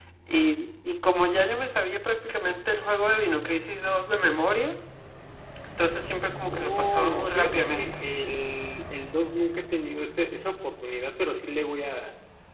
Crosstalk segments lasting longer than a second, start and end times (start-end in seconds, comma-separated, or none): 6.4-7.9